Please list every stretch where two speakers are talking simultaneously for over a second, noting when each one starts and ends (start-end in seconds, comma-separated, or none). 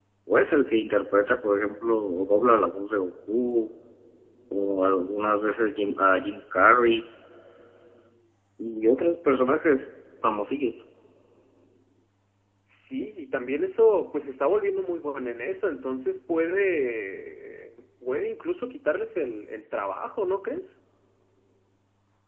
none